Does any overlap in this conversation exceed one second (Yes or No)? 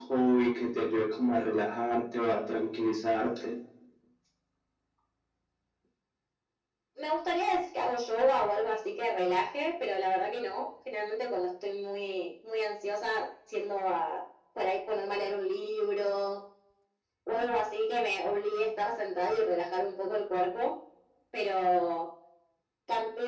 No